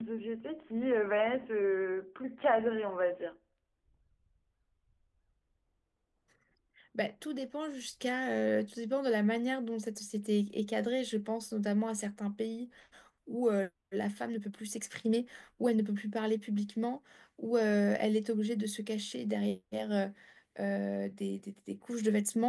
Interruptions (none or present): none